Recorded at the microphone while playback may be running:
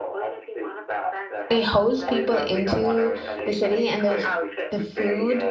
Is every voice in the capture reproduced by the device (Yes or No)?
No